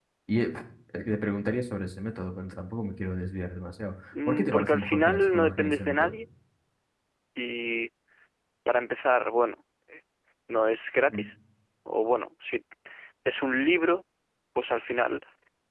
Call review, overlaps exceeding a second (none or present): present